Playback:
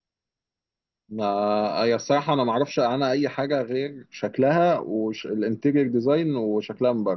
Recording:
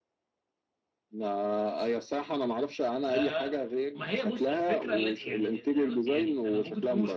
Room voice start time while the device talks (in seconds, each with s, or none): 3.1 s